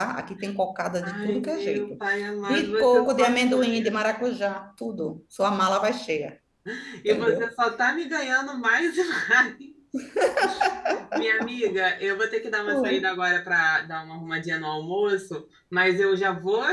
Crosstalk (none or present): present